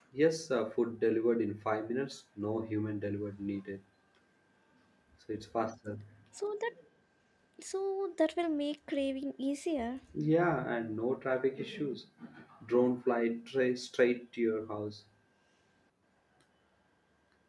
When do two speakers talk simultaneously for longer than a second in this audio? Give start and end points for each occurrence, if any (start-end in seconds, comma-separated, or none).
none